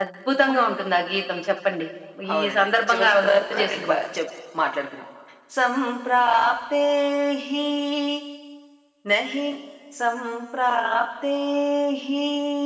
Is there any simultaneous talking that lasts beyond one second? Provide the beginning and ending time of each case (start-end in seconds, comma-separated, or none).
2.3-4.0